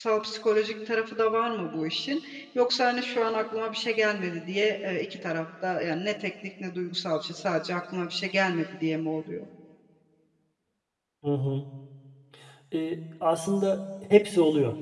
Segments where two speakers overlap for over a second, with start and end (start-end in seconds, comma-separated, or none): none